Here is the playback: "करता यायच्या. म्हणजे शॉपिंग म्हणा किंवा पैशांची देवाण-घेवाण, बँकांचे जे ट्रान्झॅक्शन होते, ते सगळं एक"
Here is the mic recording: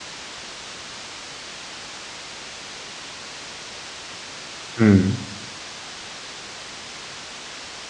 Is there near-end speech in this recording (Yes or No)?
Yes